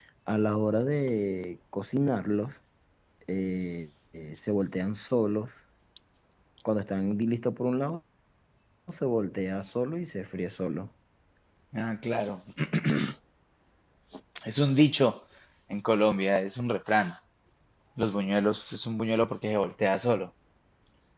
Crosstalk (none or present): none